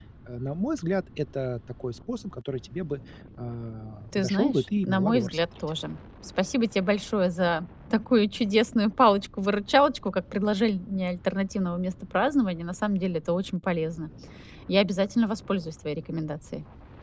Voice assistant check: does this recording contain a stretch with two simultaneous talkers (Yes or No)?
Yes